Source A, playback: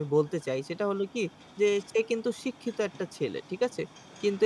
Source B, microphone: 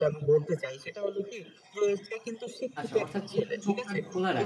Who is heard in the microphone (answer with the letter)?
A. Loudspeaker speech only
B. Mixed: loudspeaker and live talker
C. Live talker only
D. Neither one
B